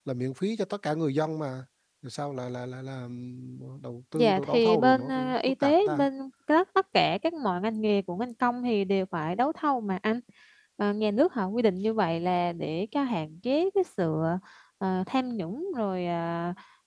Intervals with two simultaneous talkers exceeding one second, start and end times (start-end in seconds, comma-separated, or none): 4.2-6.1